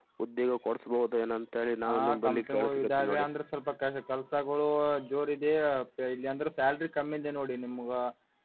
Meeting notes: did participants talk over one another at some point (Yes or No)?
Yes